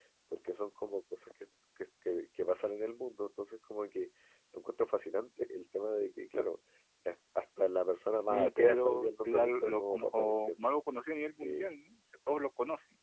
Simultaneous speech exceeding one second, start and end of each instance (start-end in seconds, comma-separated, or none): 8.3-10.5